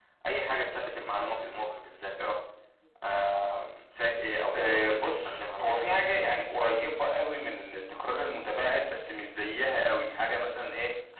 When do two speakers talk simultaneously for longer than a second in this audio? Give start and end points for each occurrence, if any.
4.5-6.2

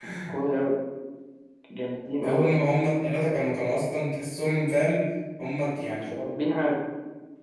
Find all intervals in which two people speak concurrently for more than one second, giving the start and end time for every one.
none

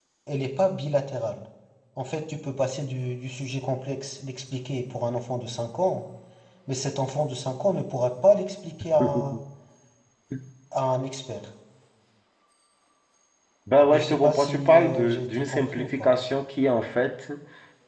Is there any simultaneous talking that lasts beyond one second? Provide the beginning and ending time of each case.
13.9-16.1

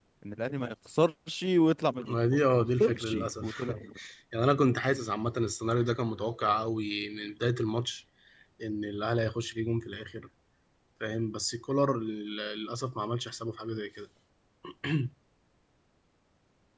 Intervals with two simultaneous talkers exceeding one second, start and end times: 2.1-3.7

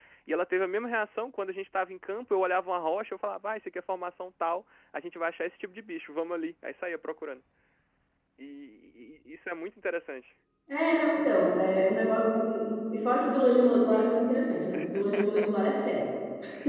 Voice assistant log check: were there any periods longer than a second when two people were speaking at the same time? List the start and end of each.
none

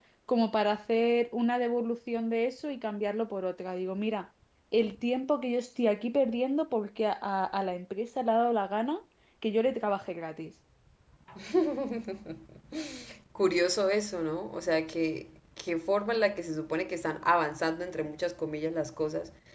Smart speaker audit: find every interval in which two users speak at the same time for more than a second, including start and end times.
none

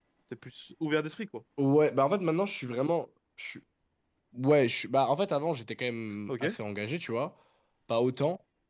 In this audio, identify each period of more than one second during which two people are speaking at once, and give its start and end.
none

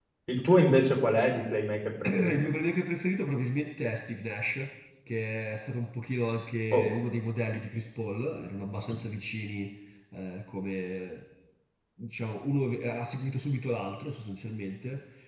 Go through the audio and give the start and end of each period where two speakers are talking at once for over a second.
none

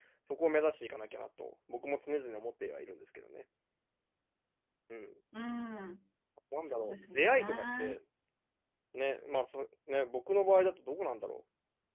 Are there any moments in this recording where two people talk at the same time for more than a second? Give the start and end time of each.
6.8-8.0

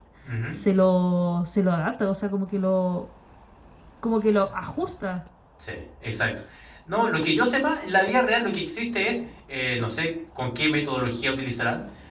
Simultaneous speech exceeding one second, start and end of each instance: none

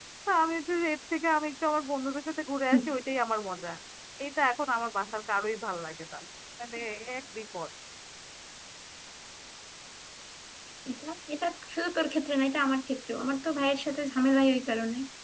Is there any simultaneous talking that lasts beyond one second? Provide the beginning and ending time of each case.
none

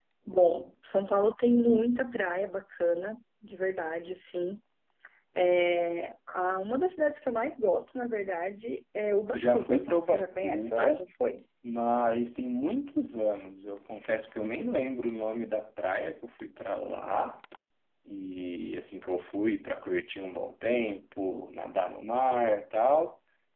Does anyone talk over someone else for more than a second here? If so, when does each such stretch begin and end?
9.3-11.0

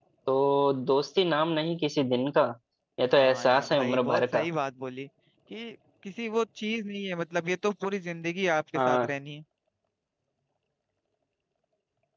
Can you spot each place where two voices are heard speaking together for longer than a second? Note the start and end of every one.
3.1-4.5

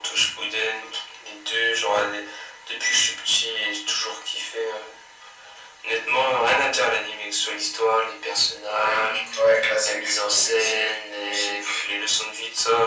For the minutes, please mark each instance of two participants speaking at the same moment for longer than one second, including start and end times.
9.8-11.8

